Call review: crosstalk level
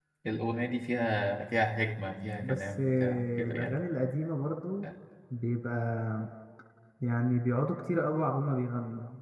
present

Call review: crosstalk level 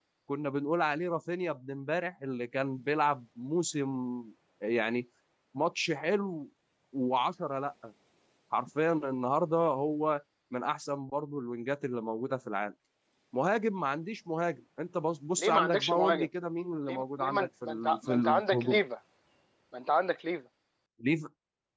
present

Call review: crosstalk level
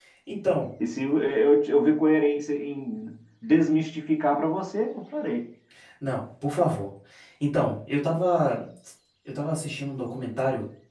none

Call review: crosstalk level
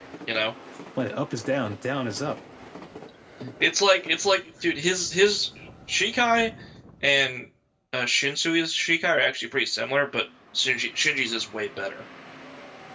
none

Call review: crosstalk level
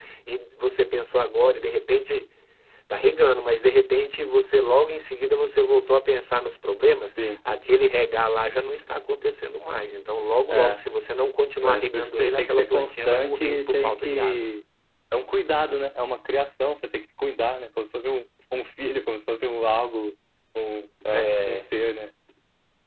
present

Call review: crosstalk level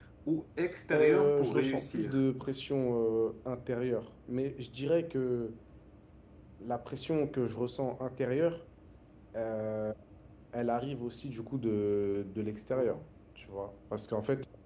present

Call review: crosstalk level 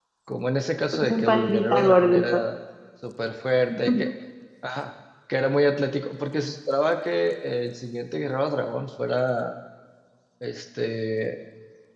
present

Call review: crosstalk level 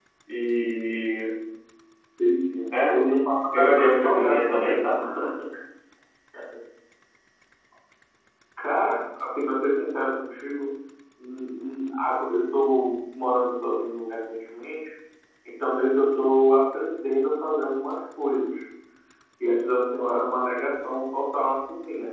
present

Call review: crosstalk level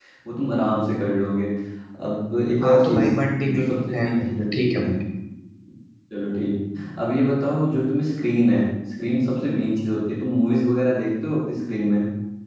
present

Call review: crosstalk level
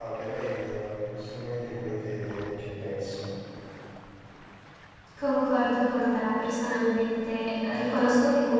none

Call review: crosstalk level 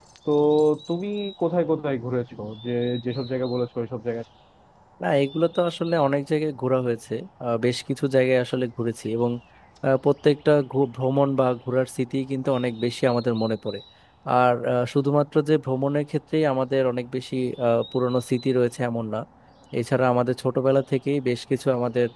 none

